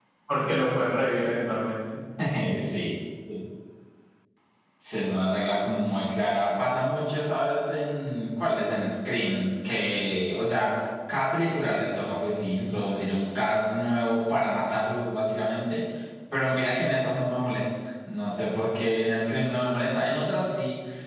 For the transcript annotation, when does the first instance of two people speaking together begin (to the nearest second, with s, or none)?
none